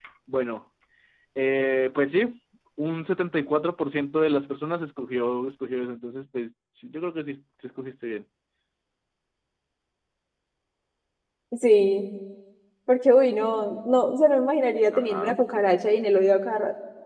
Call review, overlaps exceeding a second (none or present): none